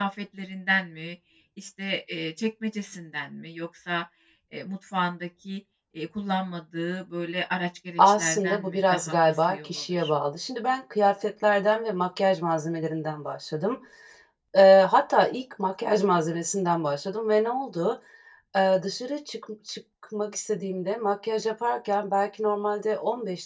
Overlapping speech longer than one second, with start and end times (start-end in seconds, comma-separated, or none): 8.0-10.1